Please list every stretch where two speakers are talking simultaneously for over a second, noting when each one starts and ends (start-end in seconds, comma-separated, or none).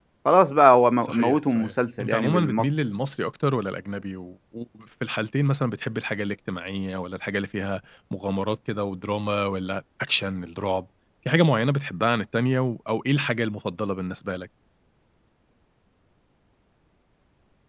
1.0-2.7